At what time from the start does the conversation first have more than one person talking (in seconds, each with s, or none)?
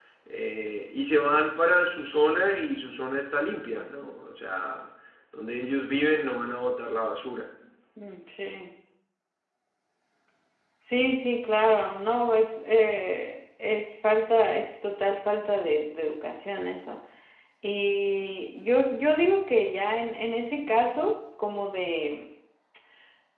none